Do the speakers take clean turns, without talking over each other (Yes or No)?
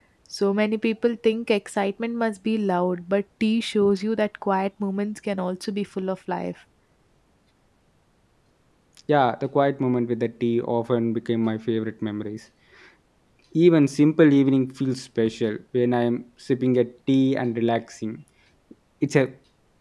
Yes